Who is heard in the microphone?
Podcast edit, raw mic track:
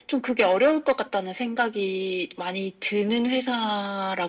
echo only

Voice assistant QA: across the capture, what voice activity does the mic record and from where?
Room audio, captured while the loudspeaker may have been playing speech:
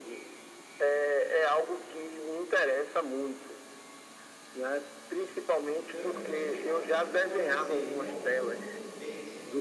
both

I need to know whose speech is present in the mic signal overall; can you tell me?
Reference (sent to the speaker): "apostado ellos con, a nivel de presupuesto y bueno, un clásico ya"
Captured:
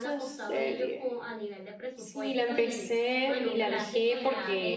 both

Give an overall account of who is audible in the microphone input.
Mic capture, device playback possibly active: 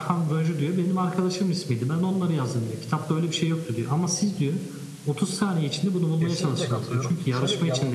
both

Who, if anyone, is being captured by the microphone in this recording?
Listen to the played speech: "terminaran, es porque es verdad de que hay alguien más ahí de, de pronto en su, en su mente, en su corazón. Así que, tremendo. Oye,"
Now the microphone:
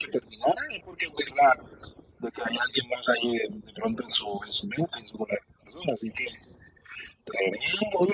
echo only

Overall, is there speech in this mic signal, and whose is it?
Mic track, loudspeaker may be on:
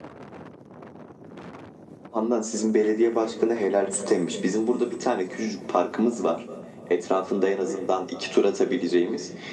echo only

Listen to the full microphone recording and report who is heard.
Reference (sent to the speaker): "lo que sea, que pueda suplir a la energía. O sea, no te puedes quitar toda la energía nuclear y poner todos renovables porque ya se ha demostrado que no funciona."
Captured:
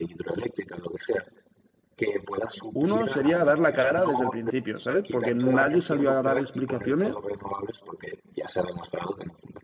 both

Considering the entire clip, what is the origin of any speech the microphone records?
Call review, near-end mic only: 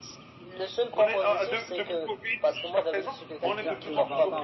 both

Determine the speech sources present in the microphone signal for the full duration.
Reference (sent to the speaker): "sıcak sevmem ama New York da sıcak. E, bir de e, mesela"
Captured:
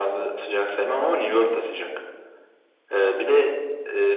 echo only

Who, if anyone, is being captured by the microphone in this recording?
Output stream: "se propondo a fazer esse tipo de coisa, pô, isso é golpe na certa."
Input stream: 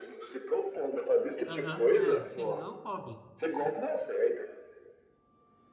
both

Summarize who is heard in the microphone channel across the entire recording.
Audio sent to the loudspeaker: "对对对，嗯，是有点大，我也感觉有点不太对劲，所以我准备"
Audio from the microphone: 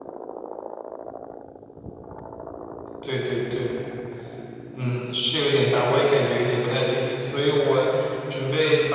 echo only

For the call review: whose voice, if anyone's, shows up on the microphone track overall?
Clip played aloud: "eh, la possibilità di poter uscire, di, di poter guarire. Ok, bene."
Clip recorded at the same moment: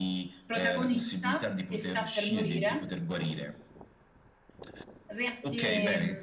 both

